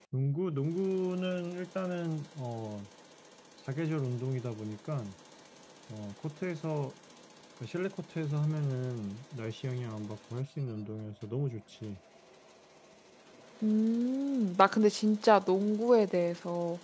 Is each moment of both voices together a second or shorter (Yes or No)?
Yes